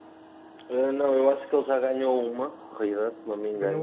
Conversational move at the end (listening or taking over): listening